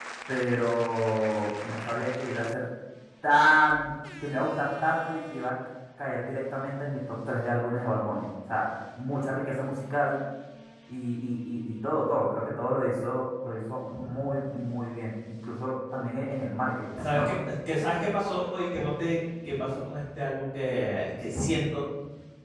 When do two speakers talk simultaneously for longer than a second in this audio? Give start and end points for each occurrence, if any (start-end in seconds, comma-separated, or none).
none